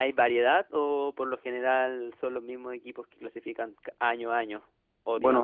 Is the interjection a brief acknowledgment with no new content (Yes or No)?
No